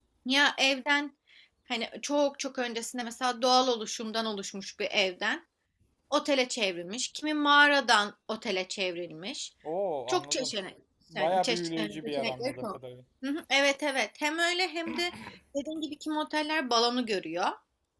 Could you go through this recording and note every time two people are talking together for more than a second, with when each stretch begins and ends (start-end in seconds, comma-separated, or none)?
11.2-12.8